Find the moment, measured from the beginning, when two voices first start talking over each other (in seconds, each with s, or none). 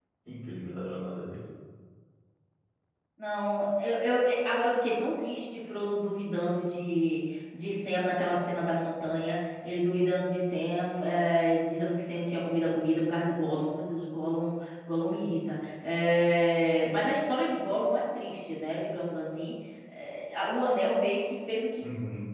none